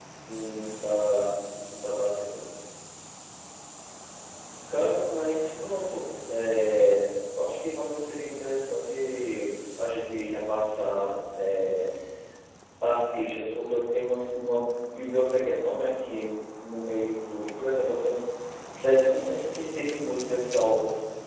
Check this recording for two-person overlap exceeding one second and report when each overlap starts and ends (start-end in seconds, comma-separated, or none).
none